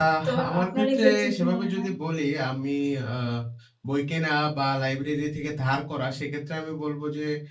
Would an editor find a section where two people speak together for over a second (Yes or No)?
Yes